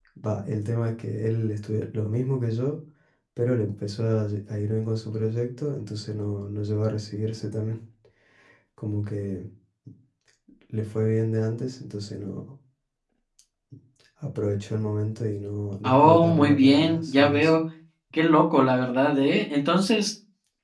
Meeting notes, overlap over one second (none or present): present